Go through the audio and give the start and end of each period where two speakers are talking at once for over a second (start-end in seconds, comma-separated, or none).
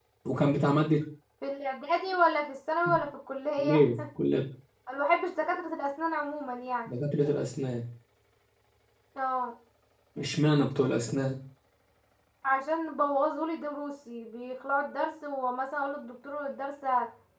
none